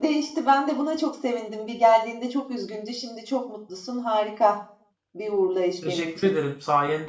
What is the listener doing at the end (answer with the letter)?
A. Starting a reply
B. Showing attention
A